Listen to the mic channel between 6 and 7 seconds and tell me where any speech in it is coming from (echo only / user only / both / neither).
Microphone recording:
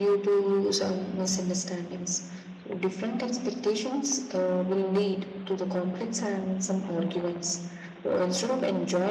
echo only